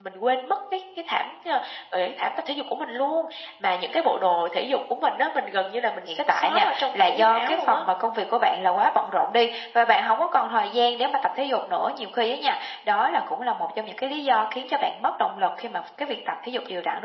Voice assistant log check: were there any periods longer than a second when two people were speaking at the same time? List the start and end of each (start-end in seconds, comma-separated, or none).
6.0-7.8